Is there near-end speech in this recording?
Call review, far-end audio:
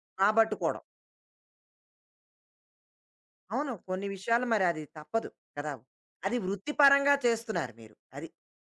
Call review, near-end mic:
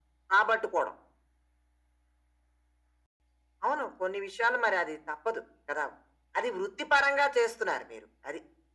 No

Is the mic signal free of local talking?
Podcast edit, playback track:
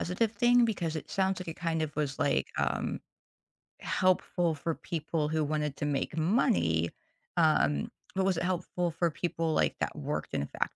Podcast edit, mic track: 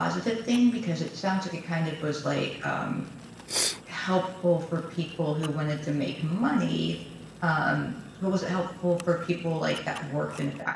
Yes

